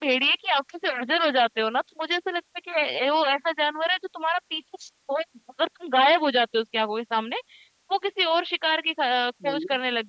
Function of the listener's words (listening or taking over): listening